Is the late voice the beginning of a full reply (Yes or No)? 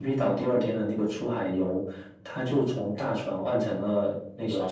No